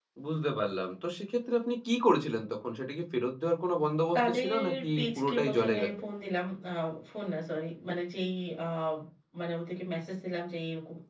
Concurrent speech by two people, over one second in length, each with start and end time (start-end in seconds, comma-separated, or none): 4.2-5.9